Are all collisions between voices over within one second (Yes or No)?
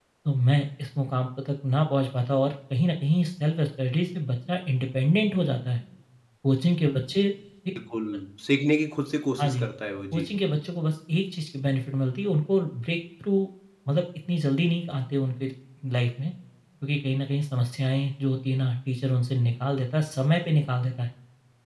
Yes